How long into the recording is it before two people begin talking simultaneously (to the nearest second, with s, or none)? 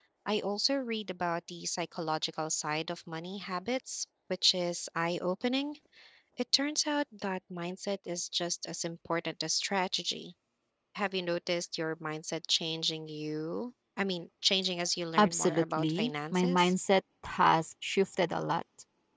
15 s